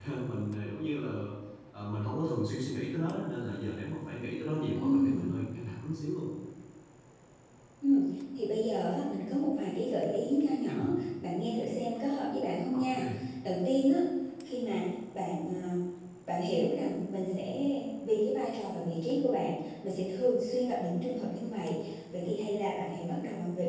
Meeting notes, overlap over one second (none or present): none